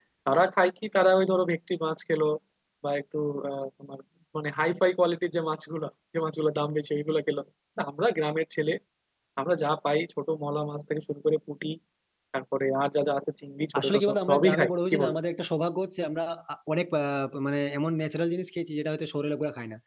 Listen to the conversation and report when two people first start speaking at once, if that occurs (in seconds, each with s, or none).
13.7 s